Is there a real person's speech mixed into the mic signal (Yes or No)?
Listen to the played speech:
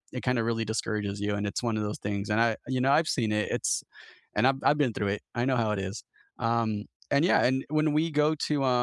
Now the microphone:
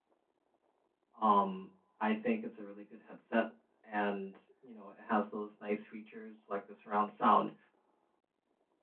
Yes